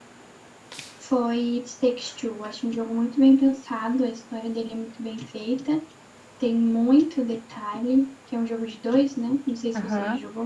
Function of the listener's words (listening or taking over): taking over